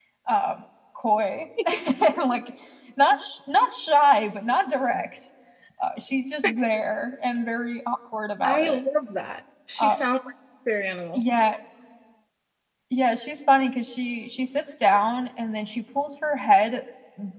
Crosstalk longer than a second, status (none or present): none